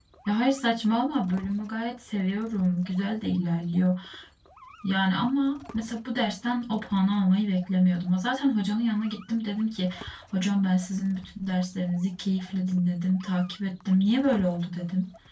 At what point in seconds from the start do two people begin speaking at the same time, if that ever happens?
none

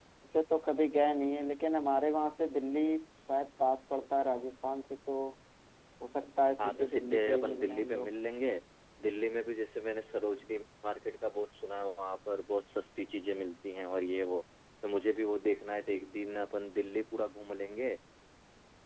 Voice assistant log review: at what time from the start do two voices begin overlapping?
6.6 s

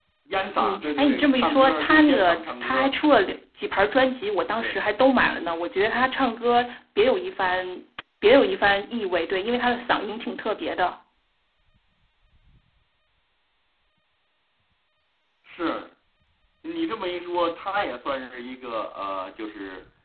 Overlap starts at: 0.6 s

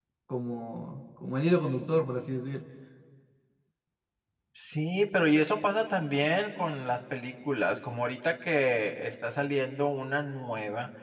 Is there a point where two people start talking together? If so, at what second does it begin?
none

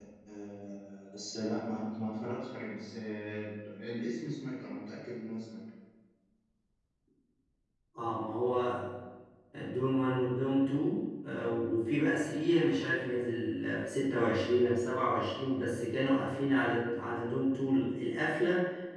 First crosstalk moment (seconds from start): none

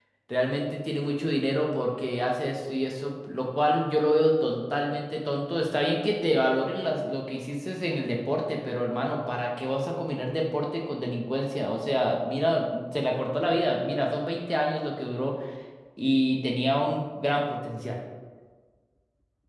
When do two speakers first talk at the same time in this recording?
none

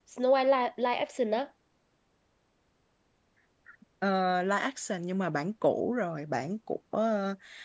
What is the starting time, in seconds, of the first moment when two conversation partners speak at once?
none

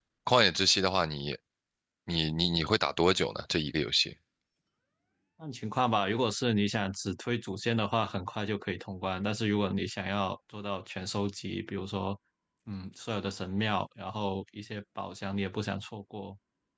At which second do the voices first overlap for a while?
none

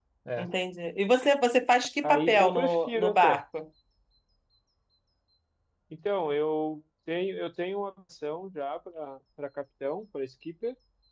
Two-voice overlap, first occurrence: 2.0 s

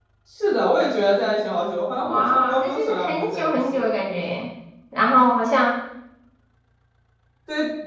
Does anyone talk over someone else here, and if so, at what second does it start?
2.0 s

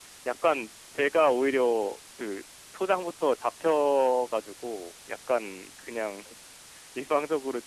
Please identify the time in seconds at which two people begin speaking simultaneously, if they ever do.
none

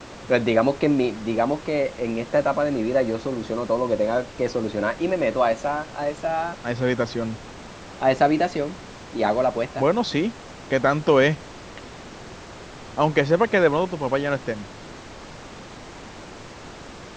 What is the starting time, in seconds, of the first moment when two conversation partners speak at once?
none

